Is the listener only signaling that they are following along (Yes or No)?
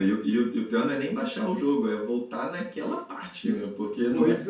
No